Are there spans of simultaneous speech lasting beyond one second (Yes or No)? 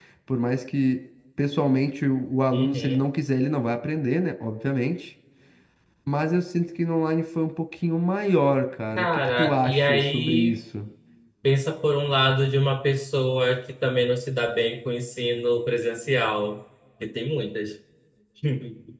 Yes